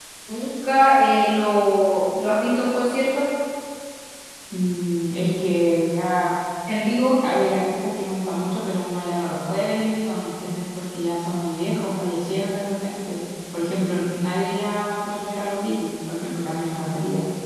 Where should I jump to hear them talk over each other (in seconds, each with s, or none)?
none